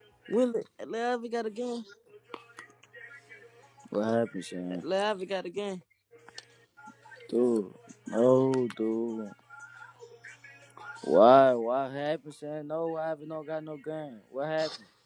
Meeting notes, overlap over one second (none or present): none